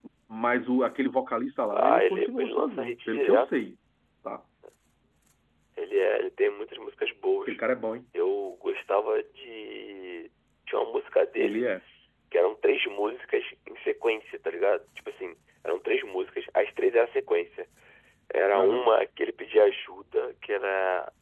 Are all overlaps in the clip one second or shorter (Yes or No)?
No